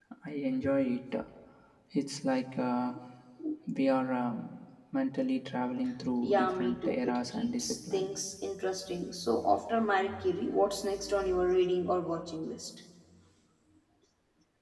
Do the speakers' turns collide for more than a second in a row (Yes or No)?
Yes